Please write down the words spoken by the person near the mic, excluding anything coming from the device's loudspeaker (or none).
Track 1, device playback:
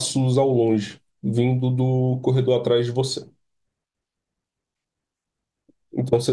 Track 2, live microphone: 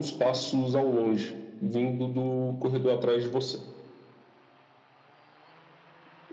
none